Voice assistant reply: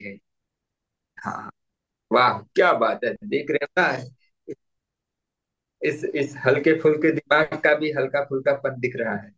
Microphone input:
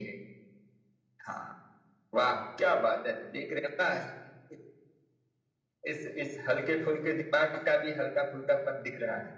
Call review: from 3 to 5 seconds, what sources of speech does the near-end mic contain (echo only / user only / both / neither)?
echo only